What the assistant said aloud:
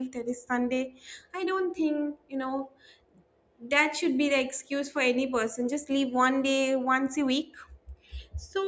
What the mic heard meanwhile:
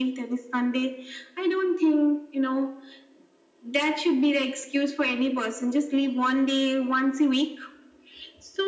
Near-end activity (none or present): none